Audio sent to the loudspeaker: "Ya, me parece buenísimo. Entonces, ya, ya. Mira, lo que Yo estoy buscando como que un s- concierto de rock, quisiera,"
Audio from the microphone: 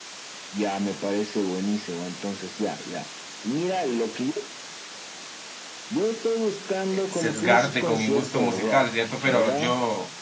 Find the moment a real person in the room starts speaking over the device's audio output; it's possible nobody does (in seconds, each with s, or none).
6.9 s